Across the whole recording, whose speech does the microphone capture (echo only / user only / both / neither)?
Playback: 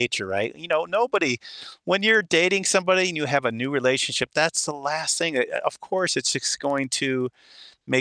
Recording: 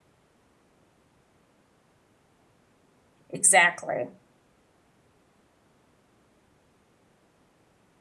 user only